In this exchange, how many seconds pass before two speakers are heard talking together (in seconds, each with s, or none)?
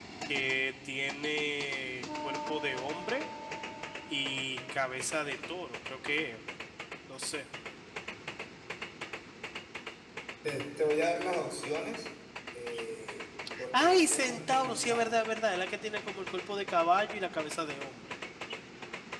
13.7 s